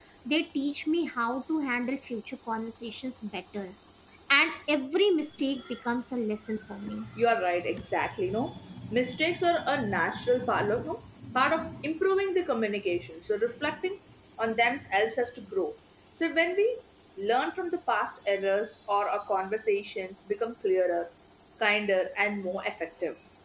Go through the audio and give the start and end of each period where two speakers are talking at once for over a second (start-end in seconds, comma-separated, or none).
none